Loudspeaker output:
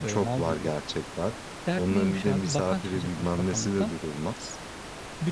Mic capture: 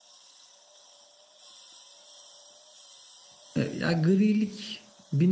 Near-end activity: present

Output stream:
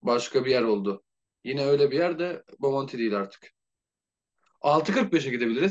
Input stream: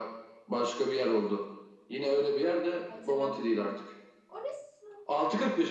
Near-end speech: present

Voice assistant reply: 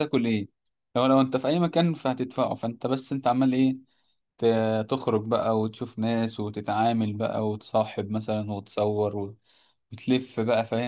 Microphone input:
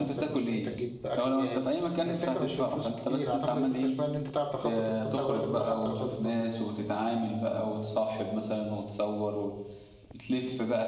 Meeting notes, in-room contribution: present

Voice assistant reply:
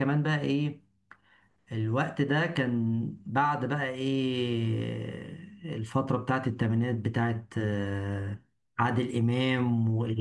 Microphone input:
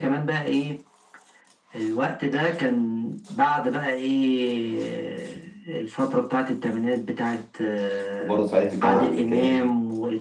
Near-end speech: present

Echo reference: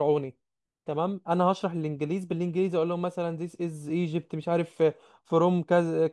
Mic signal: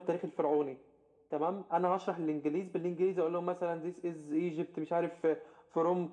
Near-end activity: none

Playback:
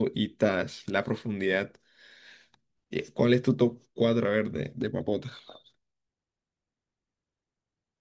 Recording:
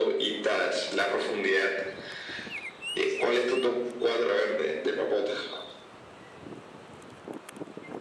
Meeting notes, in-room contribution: none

